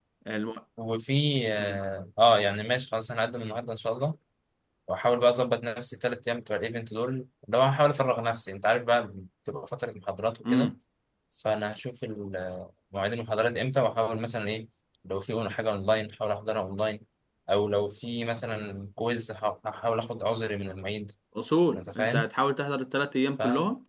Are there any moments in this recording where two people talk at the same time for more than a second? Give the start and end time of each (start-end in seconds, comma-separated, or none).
none